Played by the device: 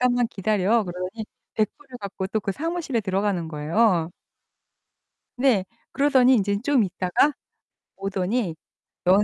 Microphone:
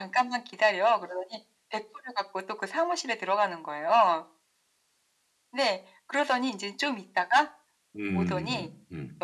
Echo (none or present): present